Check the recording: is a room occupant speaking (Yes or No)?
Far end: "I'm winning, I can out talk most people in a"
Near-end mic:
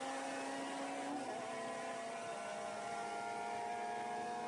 No